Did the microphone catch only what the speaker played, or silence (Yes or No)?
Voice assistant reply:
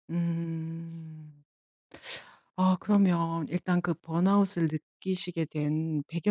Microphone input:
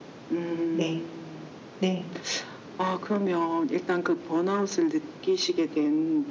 No